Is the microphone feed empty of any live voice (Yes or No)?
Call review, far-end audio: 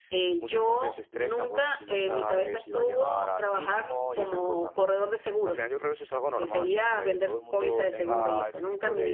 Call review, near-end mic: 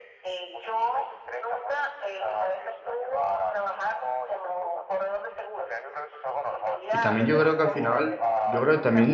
No